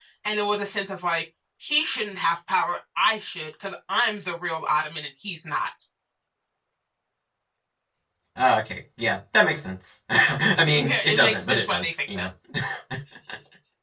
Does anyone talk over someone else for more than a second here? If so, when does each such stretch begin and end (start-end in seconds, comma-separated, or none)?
10.8-12.3